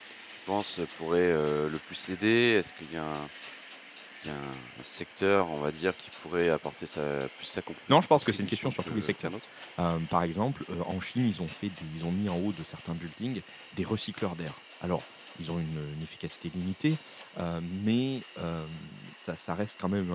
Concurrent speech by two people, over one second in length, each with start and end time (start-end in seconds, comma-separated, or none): 8.1-9.3